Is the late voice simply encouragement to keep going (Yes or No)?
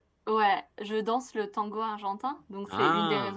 Yes